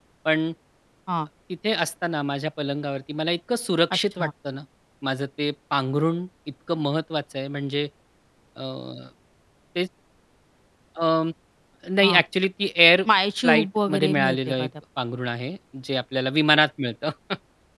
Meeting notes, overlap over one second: present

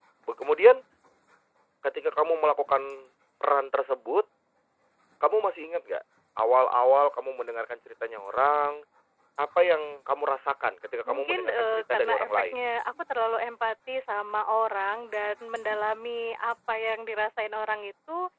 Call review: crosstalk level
present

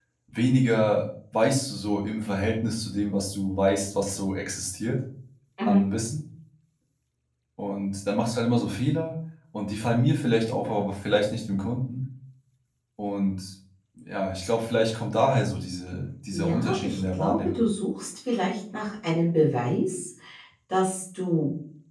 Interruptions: present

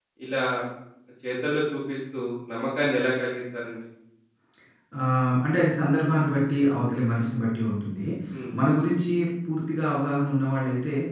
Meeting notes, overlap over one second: none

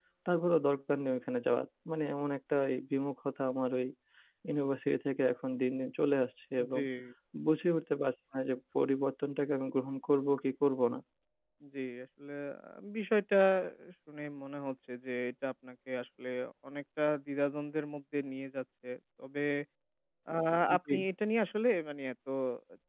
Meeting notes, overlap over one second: none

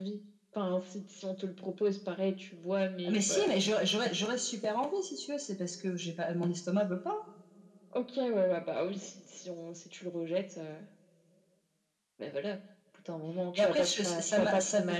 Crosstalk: present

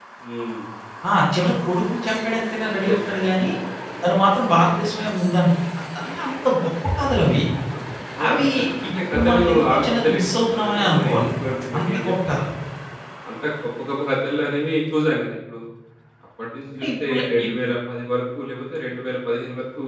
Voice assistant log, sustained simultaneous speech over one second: present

